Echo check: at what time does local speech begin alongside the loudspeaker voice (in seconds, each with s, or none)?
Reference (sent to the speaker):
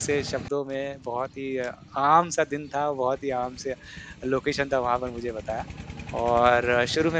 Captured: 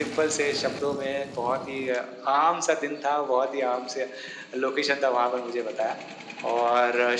none